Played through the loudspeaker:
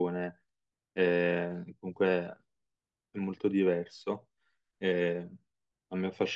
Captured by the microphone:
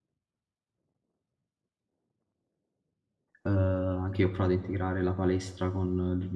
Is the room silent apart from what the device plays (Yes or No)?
No